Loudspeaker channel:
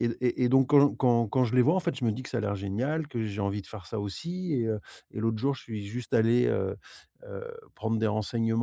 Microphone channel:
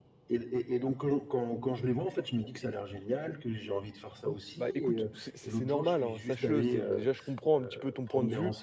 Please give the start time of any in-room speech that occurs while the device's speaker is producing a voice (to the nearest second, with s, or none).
4 s